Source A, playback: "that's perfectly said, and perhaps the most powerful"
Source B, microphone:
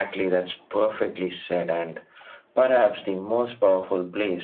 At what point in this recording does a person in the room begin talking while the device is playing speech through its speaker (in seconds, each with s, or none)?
none